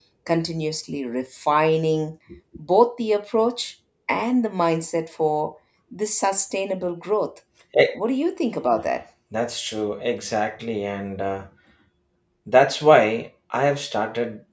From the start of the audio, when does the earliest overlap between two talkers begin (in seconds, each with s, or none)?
none